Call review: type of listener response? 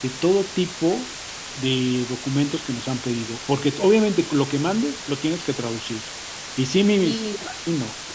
listening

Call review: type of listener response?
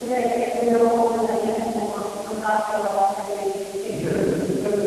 taking over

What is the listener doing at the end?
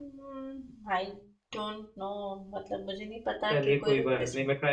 taking over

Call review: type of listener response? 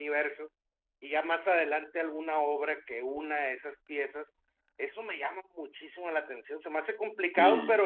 listening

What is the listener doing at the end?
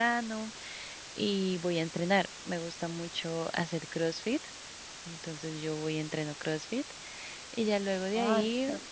taking over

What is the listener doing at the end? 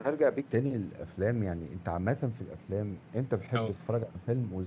listening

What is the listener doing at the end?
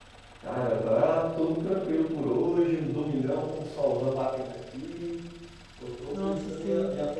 listening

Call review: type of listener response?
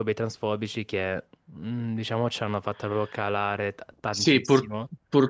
taking over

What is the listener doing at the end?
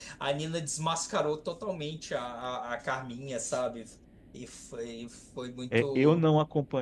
taking over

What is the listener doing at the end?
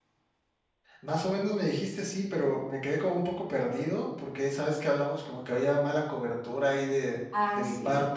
listening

